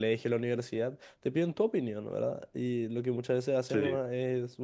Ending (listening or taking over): listening